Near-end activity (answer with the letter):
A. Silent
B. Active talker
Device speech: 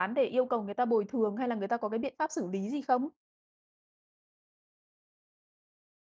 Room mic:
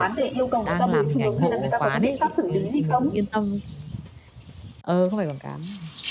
B